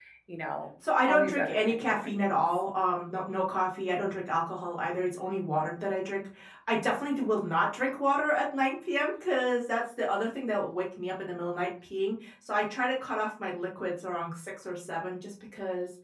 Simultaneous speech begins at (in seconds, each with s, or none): 1.0 s